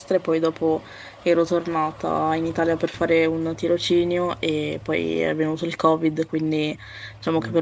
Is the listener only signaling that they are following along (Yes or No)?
Yes